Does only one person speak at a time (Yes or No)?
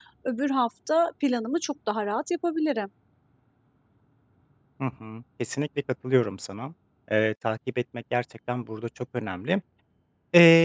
Yes